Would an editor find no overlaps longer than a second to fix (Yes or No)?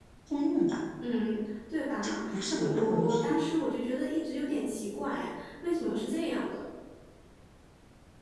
No